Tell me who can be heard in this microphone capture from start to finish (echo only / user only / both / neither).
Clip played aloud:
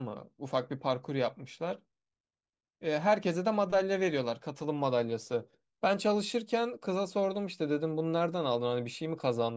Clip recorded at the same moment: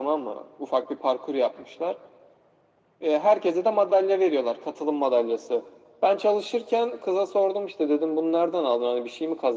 echo only